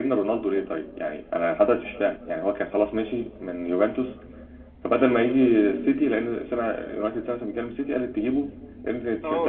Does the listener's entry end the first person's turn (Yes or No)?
Yes